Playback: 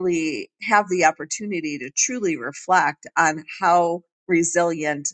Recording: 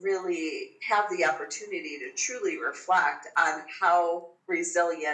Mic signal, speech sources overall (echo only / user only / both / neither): echo only